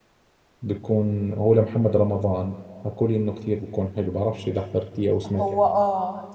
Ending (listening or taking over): taking over